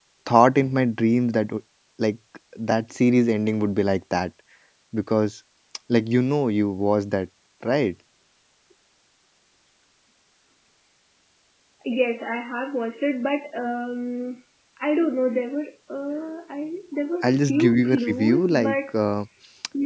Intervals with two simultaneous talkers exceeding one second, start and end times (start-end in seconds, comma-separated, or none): 17.2-18.8